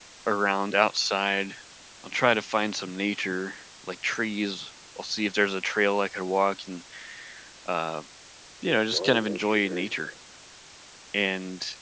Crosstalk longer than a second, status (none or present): present